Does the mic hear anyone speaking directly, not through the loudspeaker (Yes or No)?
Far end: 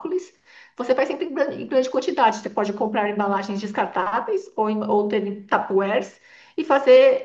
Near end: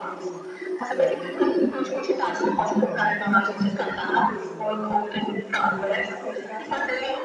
Yes